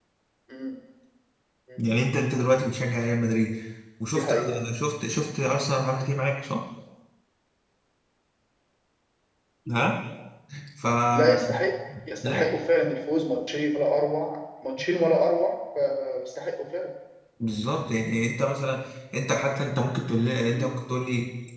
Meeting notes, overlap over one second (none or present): none